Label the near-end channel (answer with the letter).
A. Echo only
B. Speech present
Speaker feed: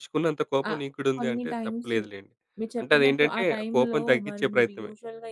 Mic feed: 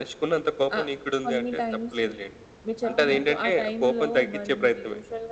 B